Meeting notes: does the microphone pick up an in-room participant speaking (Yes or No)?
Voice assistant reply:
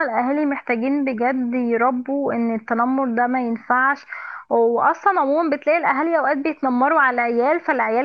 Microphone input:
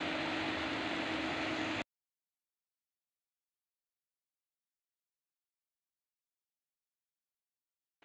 No